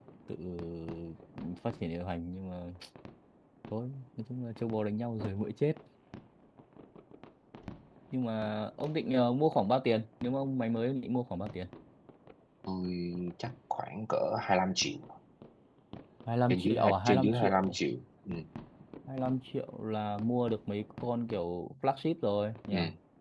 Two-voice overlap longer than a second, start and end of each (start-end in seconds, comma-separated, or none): 16.5-17.8